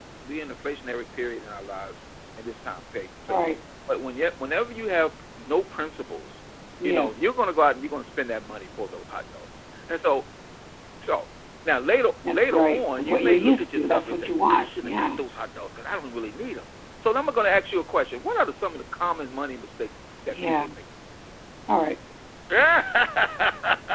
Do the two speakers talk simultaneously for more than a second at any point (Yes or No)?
Yes